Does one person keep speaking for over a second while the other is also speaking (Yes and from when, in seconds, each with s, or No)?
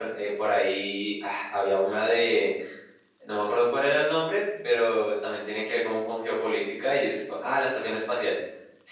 No